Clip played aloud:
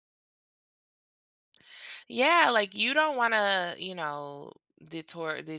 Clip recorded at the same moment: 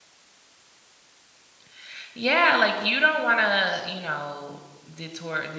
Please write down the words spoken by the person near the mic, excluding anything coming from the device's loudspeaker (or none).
none